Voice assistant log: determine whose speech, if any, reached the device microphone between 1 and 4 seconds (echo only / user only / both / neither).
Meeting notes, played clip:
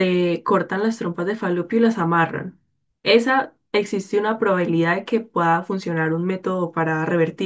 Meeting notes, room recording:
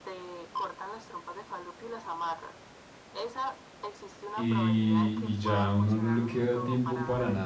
echo only